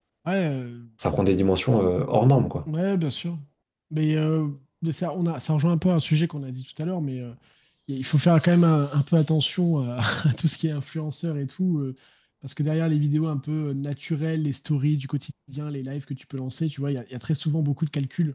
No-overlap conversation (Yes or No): Yes